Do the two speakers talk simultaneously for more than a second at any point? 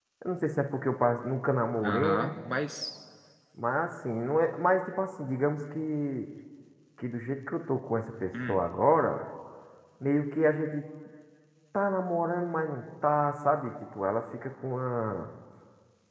No

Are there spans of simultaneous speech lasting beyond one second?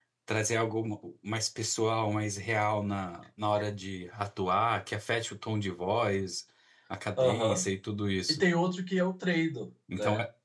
No

